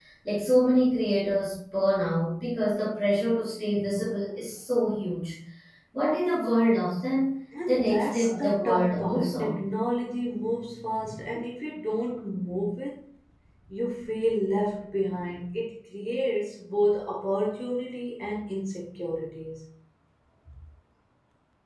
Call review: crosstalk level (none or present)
present